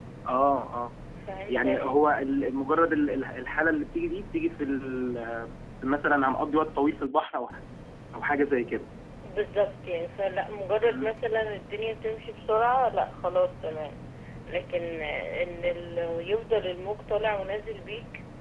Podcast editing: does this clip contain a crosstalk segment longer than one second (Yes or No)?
No